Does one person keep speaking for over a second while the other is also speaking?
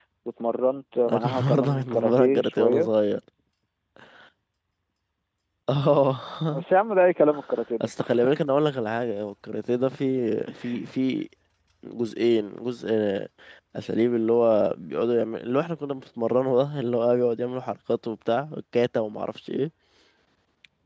Yes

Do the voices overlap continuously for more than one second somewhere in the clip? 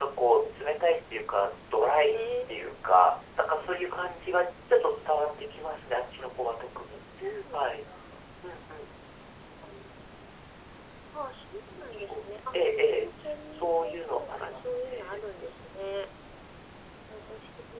Yes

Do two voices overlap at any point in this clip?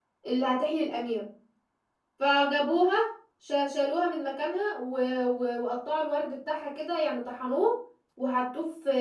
No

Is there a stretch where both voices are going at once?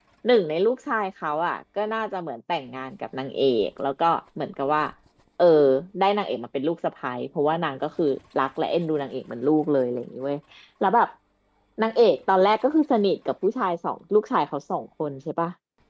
No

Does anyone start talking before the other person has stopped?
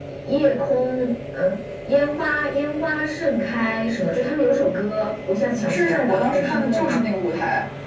Yes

